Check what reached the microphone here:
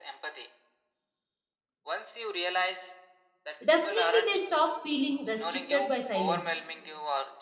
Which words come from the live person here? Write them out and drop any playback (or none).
definitely they stop feeling restricted by silence.